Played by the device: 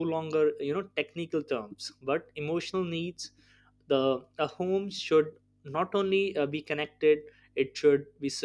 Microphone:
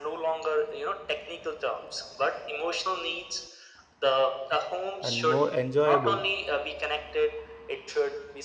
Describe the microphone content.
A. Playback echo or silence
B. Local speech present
B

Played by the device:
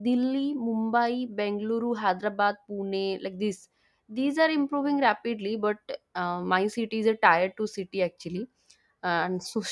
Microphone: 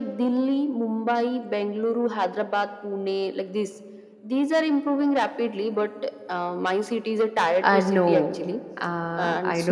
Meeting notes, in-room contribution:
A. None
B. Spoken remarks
B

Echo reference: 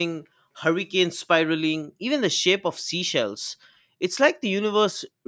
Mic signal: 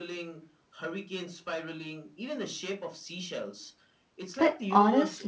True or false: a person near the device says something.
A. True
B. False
A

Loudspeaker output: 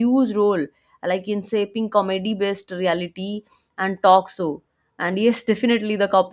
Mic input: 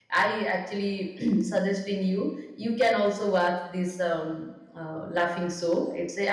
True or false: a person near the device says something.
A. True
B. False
A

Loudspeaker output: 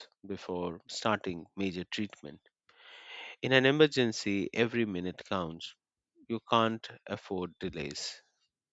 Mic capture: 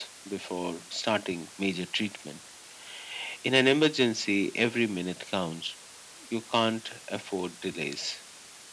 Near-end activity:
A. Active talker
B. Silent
B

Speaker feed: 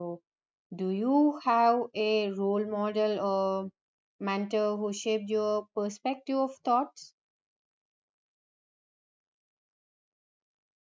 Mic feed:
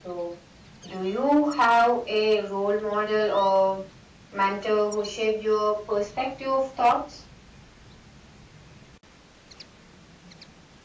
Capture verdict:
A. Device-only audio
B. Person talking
A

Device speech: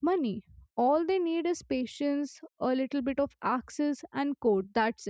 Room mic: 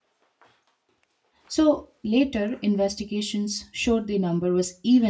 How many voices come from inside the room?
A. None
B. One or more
B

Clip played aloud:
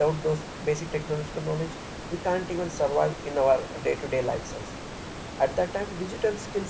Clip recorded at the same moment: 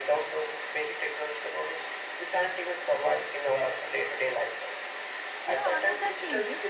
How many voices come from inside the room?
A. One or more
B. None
A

